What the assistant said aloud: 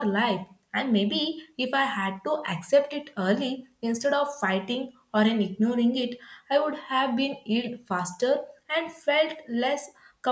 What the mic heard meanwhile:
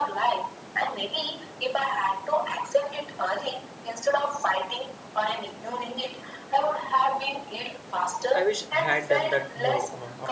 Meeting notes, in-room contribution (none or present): present